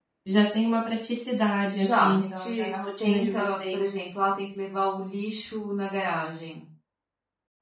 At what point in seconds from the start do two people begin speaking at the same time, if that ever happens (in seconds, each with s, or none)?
1.7 s